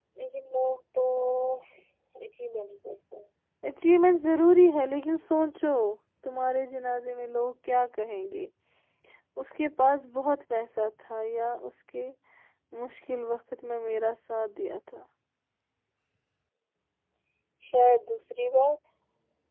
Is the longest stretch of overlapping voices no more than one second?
Yes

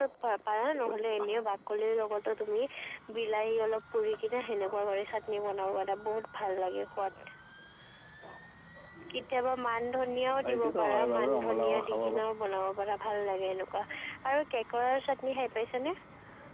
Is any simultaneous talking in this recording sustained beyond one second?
Yes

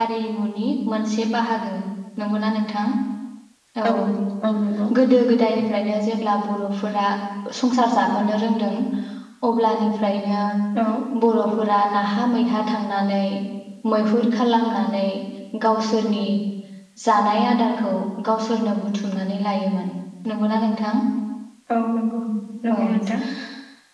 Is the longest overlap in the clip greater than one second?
No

